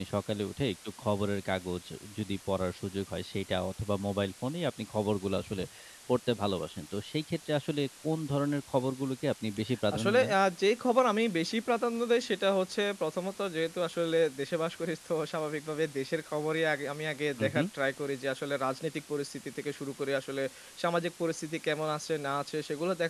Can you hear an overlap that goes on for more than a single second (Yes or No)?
No